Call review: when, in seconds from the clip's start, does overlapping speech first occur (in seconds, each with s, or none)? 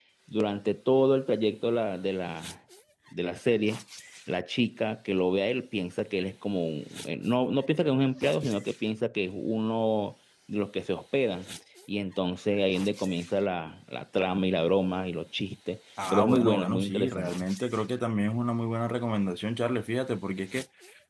16.0 s